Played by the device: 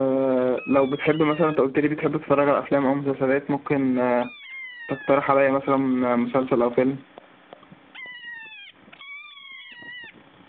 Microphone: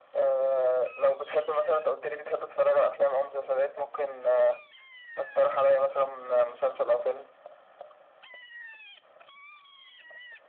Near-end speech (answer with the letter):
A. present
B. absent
B